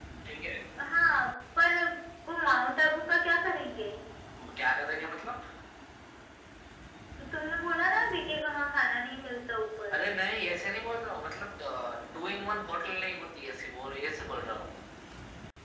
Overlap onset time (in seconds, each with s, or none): none